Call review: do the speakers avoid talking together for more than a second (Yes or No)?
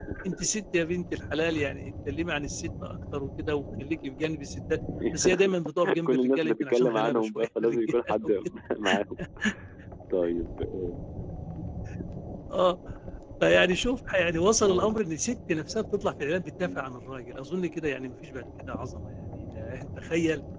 No